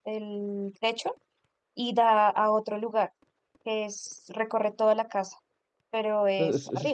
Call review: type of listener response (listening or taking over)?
taking over